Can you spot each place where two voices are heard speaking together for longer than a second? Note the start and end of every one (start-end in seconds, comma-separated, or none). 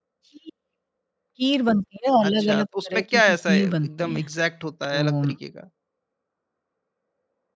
2.2-4.3